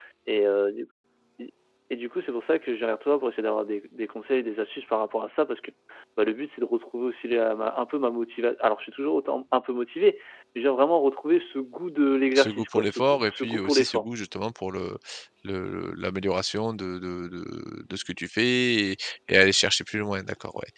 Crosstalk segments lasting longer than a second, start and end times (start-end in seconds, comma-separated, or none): 12.3-14.1